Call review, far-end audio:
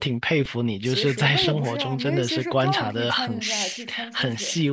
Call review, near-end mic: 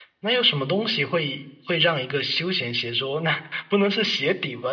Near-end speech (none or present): present